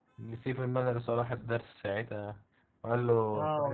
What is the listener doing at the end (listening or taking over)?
taking over